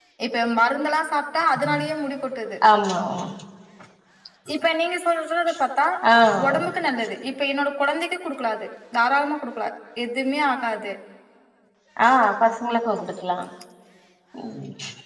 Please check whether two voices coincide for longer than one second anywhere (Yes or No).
No